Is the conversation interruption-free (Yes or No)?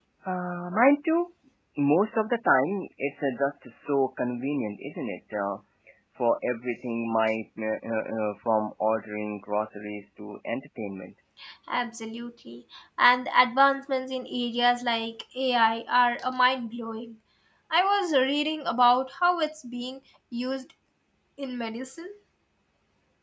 Yes